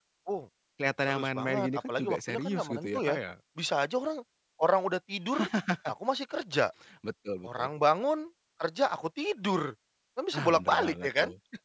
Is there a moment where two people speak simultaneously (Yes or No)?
Yes